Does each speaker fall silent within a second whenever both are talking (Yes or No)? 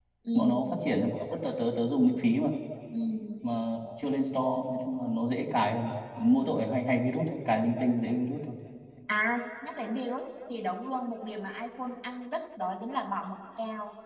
Yes